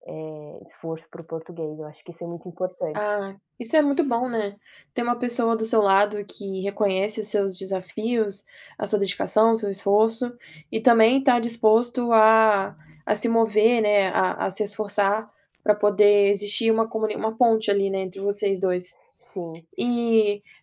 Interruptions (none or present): none